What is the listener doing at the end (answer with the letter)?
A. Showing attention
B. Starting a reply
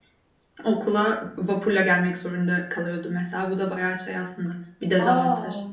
B